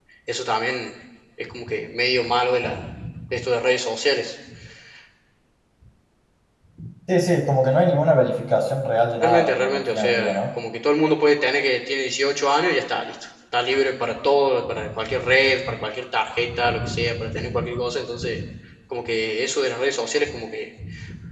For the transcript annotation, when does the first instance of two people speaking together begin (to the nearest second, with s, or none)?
9 s